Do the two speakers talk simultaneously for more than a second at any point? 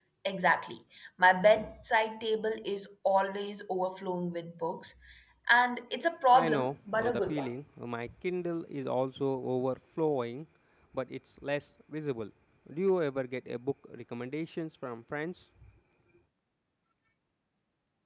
Yes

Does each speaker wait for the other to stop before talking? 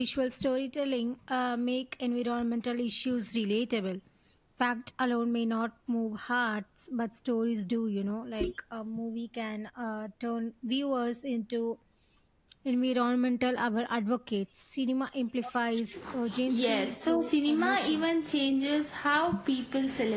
No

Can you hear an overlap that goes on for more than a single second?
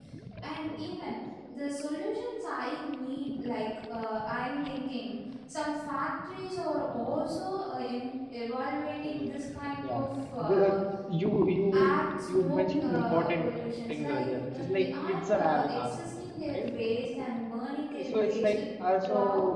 Yes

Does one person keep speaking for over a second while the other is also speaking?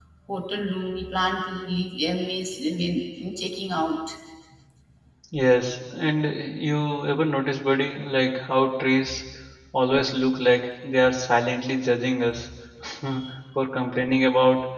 No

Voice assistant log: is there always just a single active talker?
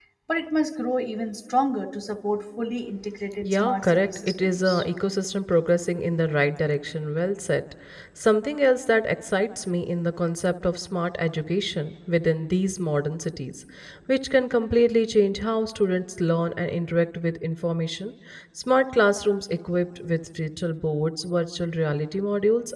No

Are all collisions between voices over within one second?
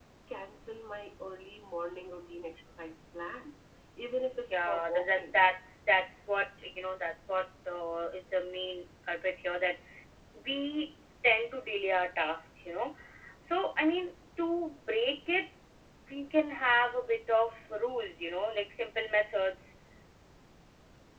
No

